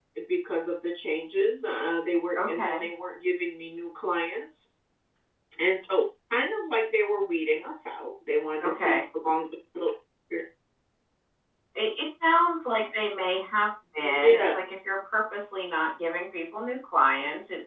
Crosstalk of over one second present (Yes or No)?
No